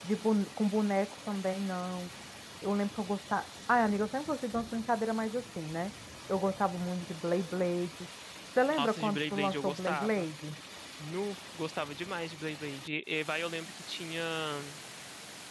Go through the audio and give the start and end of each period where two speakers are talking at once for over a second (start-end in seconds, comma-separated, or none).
8.7-10.2